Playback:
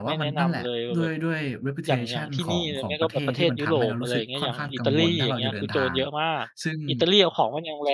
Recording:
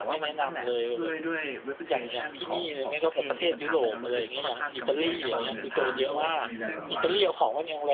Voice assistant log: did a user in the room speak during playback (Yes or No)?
Yes